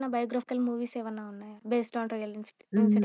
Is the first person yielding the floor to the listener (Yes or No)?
Yes